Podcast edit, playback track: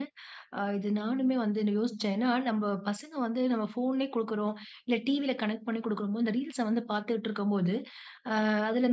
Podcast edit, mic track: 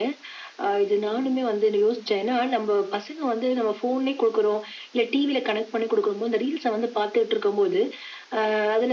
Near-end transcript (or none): none